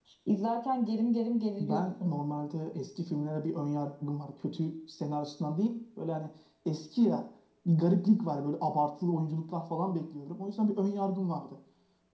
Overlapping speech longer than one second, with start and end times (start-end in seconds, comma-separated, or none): none